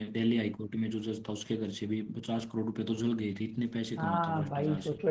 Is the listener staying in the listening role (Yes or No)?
No